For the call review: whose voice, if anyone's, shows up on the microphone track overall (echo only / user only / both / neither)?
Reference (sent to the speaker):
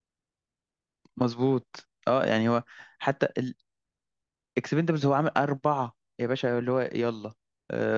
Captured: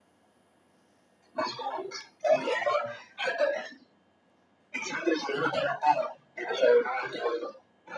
echo only